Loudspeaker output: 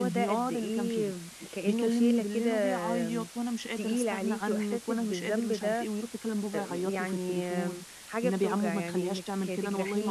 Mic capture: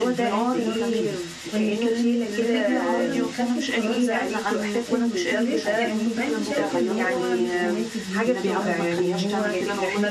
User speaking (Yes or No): Yes